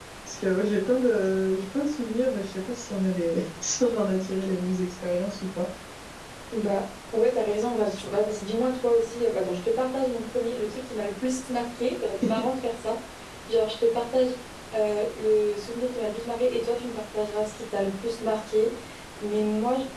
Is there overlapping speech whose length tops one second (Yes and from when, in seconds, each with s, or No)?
No